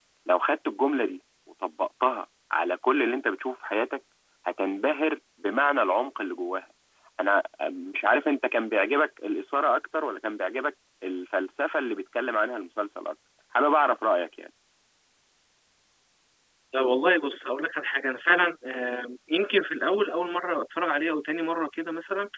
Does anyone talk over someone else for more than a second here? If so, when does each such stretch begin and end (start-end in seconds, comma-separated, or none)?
none